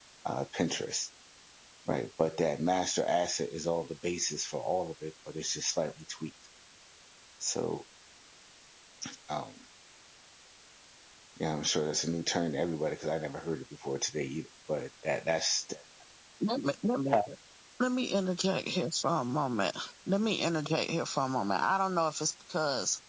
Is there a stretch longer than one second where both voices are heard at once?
No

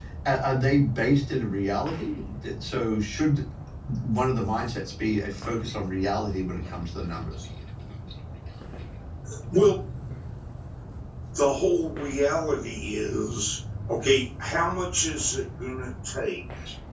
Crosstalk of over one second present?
No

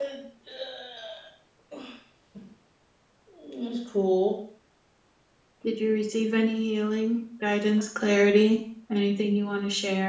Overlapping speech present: No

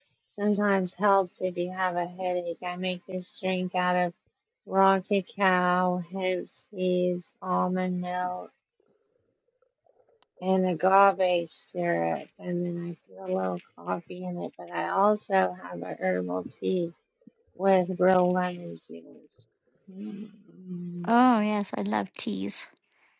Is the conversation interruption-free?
Yes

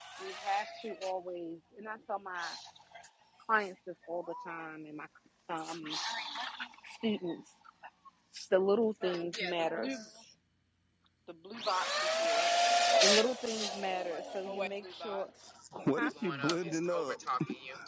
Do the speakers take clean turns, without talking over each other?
No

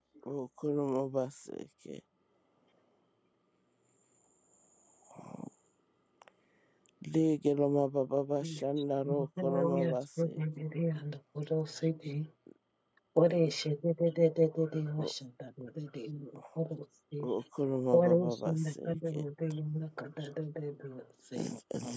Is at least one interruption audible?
Yes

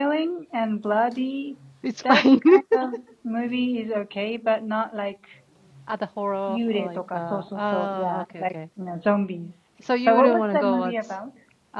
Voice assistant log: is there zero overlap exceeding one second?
No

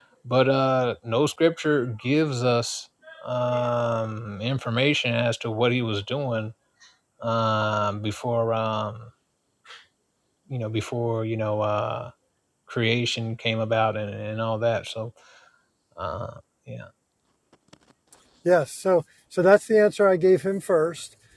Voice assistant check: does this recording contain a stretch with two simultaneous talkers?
No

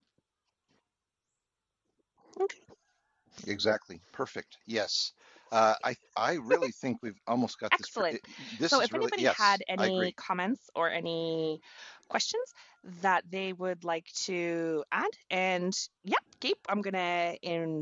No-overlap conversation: No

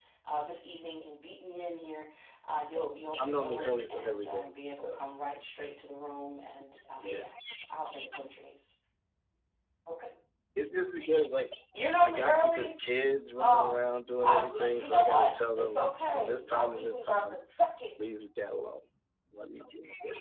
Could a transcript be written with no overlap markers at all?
No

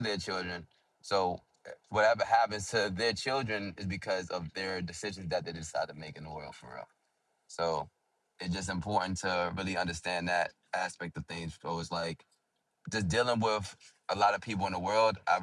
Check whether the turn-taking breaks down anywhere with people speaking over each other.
No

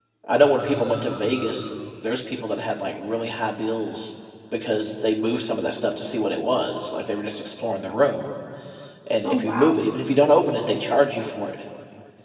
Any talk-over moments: Yes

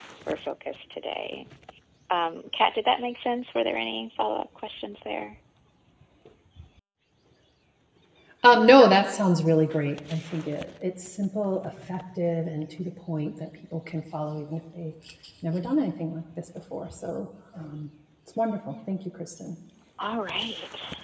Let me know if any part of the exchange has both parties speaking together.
No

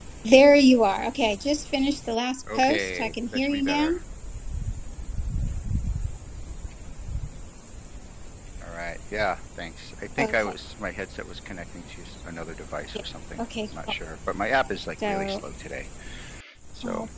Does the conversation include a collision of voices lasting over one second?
Yes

